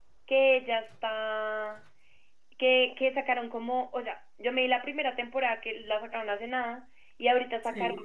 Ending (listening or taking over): listening